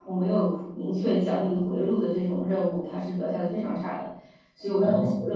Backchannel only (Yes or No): Yes